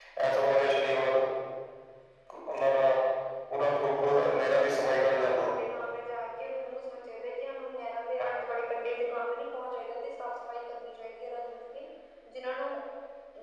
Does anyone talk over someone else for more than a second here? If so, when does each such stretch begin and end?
4.1-5.5

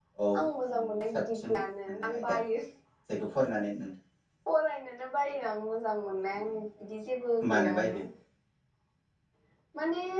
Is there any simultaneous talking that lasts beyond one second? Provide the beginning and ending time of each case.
0.8-2.4

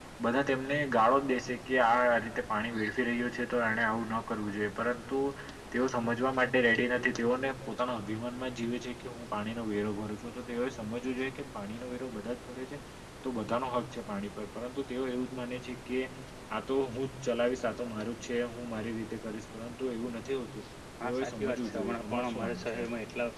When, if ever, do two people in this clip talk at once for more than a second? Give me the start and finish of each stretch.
21.0-22.8

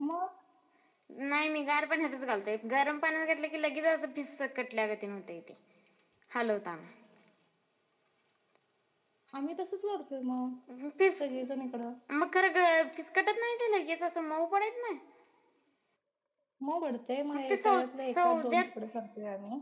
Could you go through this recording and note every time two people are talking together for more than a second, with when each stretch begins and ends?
17.3-18.7

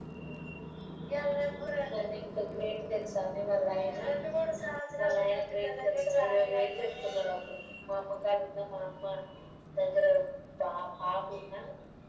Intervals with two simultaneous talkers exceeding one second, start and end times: 5.0-7.1

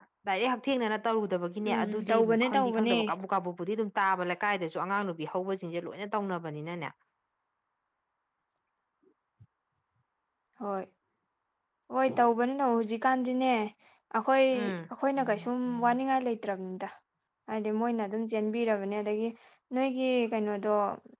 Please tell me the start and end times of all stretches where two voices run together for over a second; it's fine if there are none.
1.7-3.0

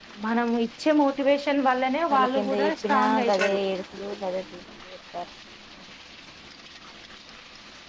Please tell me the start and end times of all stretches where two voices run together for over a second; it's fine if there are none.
2.1-3.6

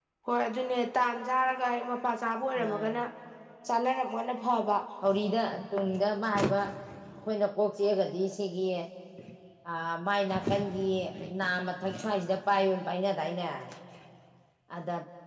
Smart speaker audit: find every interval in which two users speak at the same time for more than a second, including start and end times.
none

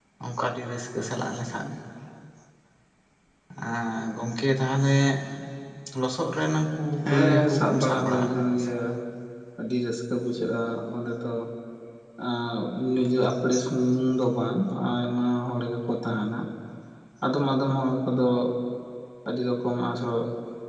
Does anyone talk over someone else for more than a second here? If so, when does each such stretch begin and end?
7.0-8.7

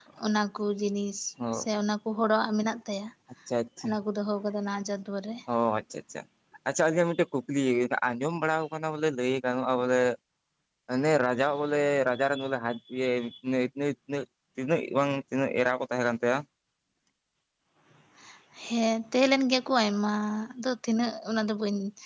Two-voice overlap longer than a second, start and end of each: none

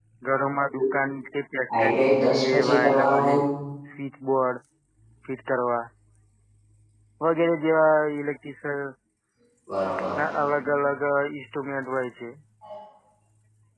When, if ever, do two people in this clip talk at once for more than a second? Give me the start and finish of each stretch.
1.8-3.4

